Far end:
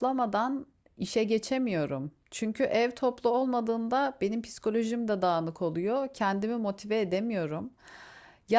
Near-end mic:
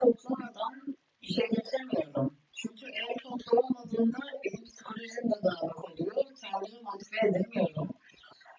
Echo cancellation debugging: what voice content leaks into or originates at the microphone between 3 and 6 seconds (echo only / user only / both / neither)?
echo only